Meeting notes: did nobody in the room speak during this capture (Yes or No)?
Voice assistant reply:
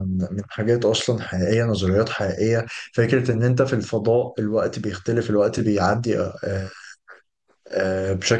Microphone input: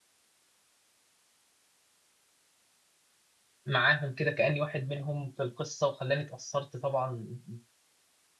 No